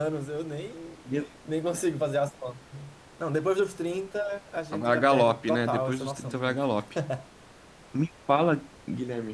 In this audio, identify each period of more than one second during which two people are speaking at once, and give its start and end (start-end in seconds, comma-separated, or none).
4.7-6.6